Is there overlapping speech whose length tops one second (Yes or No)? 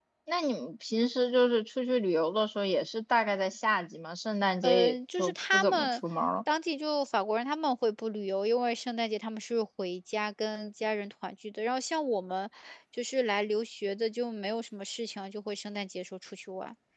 Yes